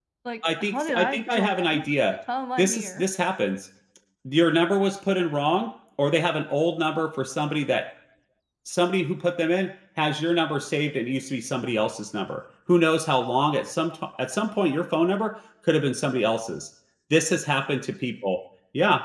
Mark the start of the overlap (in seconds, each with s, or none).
0.6 s